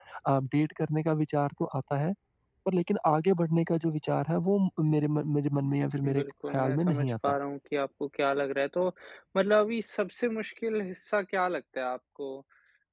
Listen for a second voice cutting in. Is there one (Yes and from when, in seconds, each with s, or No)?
Yes, from 6.0 s